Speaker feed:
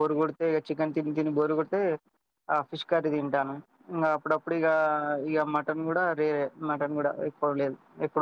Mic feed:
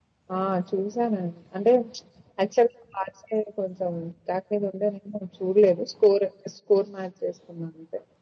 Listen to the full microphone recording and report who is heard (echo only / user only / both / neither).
user only